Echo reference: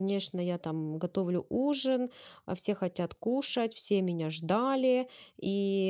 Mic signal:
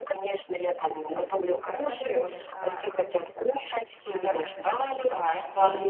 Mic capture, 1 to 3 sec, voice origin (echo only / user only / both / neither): both